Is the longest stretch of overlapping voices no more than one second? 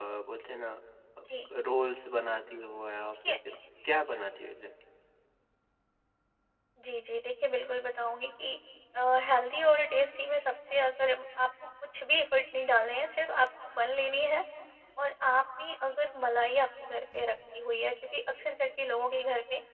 Yes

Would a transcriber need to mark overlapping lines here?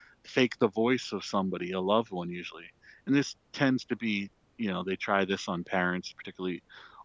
No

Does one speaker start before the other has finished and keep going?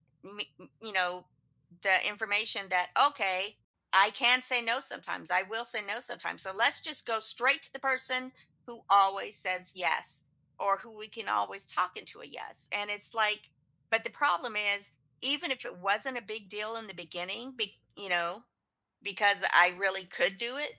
No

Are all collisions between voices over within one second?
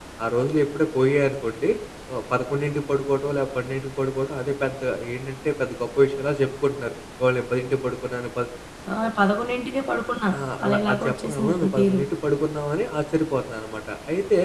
No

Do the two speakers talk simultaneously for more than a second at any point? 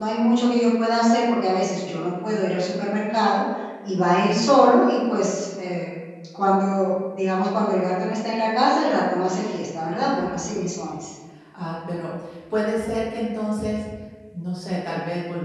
No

